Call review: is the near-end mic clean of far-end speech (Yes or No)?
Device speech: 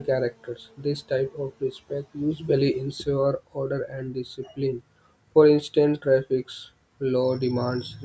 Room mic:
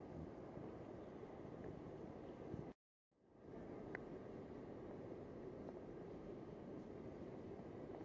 Yes